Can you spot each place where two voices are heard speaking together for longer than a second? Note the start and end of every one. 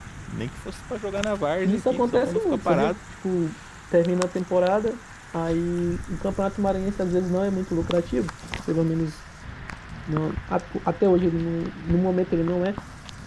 1.6-3.0

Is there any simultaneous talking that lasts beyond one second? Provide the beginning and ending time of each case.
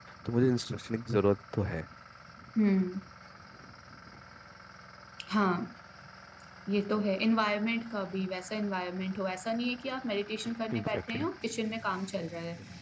none

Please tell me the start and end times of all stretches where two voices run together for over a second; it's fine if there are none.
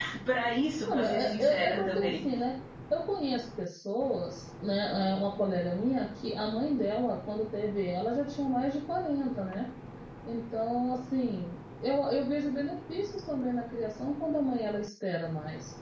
0.8-2.2

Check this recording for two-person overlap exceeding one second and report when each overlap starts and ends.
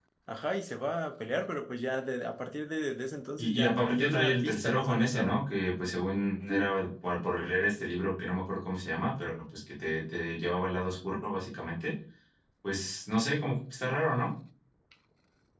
3.4-5.4

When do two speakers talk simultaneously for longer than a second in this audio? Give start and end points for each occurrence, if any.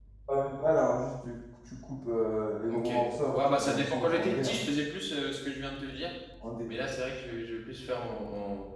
3.3-4.6

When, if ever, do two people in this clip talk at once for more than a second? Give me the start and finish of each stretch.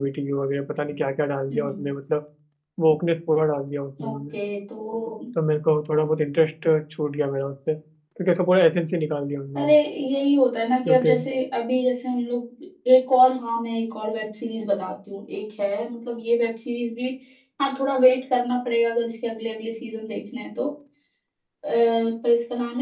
none

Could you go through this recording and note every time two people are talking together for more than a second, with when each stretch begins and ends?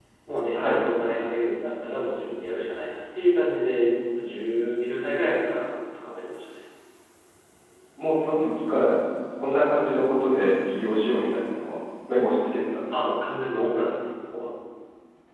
none

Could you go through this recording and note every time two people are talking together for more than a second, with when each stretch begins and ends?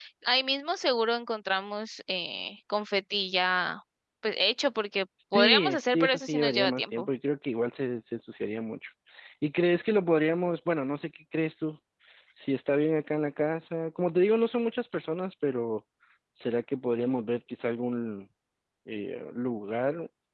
5.3-7.1

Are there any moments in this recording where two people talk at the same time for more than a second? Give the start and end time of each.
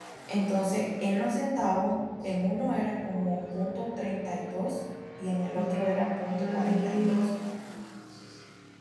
5.5-7.3

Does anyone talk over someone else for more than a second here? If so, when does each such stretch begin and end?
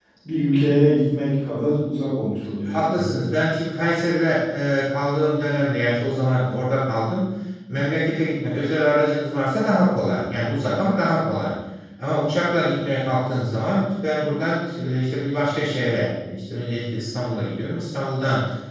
none

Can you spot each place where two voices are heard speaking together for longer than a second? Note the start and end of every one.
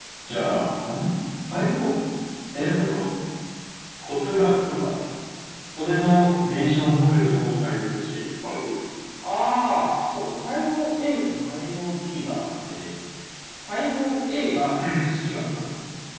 none

